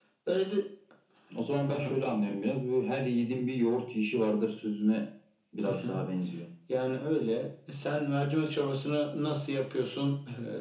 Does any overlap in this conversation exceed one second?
No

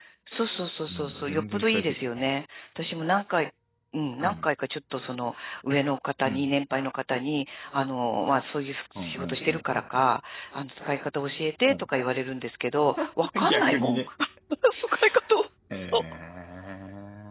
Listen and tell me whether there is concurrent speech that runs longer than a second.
Yes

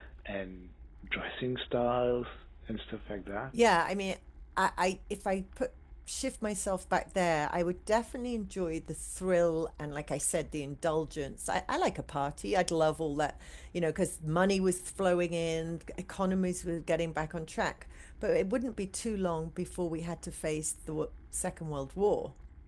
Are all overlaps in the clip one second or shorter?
Yes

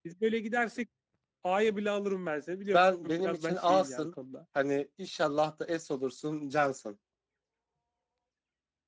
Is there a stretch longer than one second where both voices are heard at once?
Yes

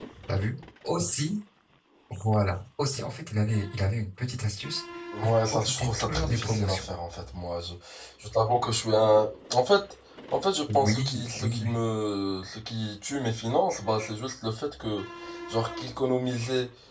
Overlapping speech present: Yes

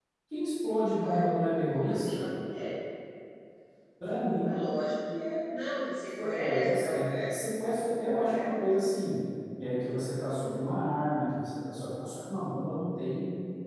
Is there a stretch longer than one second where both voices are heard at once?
Yes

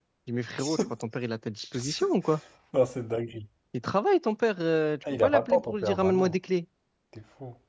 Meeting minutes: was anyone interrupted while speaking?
Yes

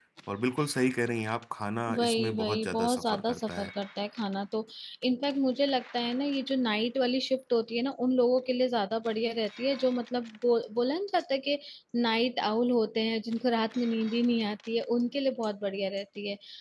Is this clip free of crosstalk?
No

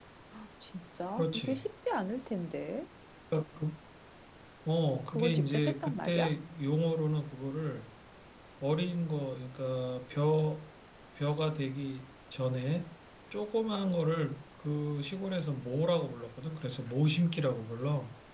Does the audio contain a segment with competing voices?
Yes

